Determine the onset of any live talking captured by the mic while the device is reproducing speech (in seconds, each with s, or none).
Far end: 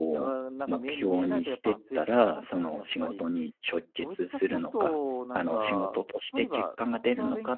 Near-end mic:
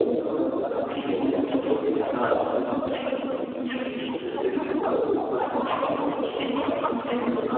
3.6 s